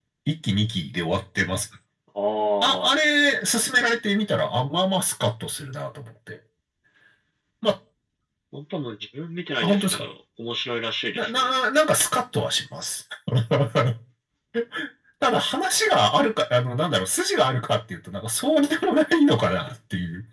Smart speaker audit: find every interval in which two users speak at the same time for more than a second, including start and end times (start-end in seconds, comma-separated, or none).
none